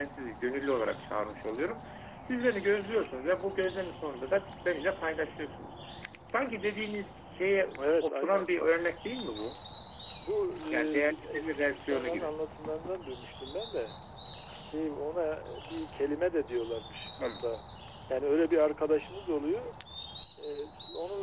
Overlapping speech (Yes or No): Yes